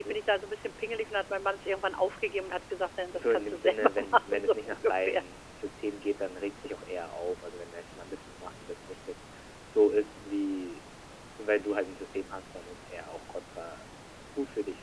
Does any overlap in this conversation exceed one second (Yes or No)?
Yes